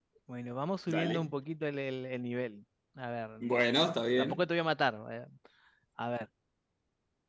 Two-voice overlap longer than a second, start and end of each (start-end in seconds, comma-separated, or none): none